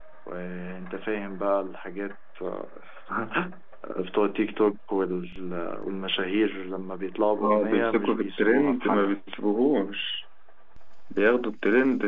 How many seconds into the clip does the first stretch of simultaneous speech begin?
7.4 s

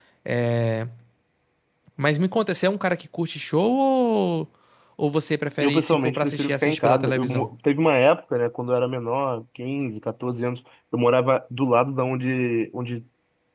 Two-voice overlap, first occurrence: 5.6 s

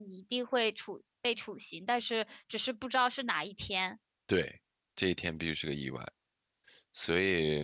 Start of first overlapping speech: none

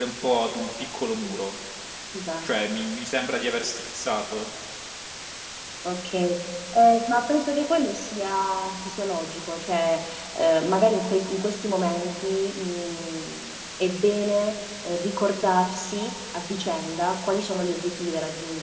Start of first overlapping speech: none

